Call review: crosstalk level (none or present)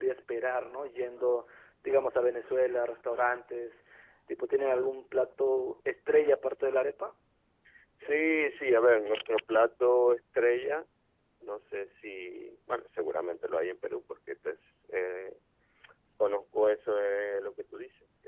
none